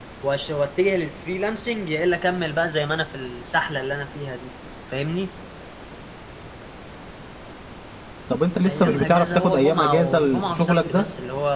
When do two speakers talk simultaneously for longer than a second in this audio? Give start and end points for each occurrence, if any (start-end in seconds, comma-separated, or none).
8.7-11.0